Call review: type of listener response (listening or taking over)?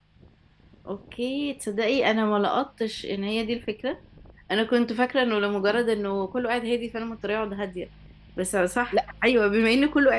listening